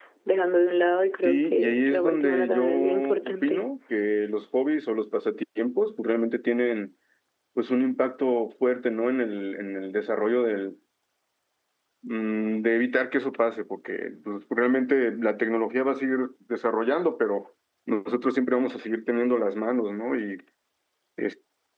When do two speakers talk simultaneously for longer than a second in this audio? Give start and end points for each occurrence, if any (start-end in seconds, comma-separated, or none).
1.2-3.6